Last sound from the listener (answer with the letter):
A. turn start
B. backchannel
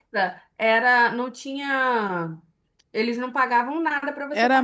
A